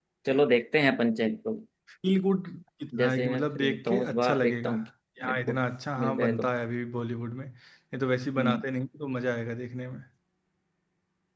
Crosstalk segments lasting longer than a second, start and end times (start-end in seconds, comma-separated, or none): 3.0-4.7